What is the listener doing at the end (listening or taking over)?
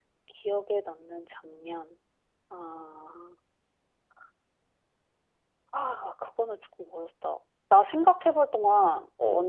taking over